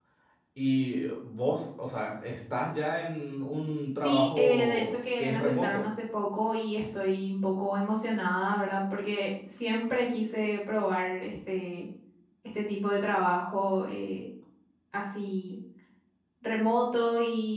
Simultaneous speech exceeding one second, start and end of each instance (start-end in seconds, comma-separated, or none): 4.0-5.9